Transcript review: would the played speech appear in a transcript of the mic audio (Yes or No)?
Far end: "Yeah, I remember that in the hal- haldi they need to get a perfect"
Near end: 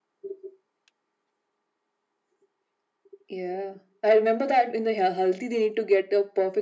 Yes